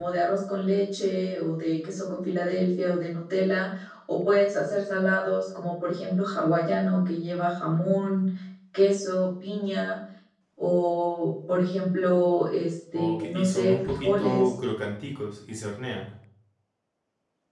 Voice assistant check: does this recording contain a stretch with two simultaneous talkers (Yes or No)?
Yes